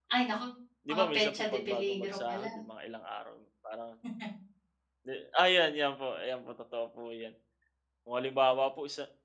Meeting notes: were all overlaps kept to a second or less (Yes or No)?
No